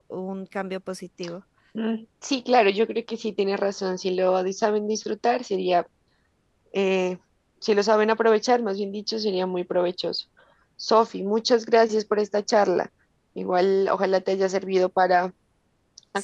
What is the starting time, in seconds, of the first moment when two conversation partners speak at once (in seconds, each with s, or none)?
none